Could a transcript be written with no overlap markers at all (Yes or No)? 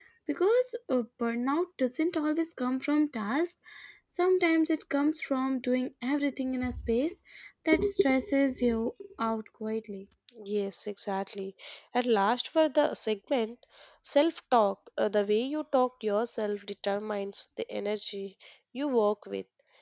Yes